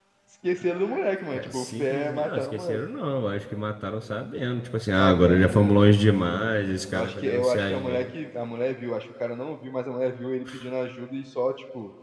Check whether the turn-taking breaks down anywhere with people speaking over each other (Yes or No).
Yes